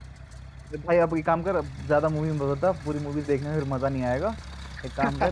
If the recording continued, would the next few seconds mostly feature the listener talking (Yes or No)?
No